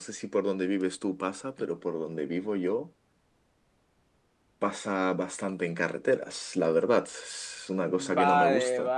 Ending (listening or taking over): taking over